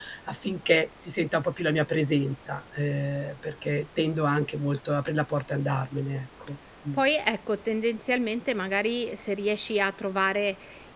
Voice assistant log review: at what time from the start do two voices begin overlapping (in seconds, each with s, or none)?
none